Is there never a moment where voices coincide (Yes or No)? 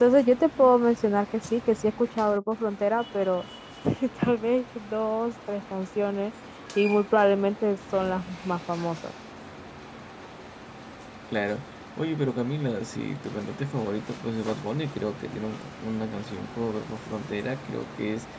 Yes